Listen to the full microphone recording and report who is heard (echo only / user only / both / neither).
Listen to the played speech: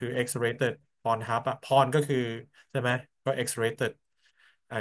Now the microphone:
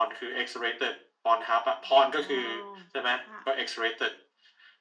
both